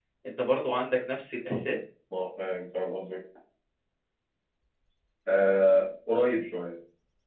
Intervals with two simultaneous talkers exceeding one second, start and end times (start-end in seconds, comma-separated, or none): none